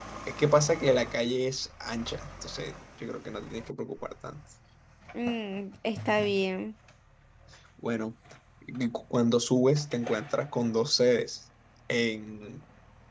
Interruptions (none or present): none